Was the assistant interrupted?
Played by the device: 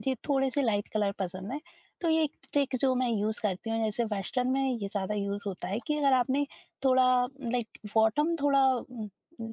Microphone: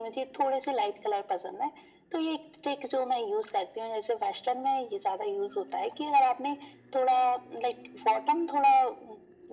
No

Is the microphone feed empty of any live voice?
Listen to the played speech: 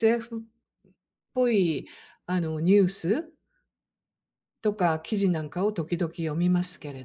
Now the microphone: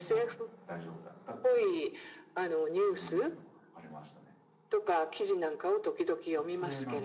No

